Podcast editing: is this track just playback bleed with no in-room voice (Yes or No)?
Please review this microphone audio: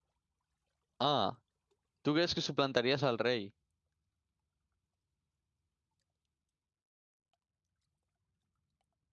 No